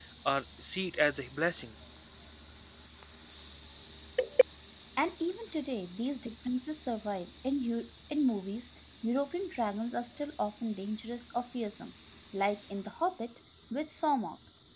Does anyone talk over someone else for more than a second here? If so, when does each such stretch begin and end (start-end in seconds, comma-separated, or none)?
none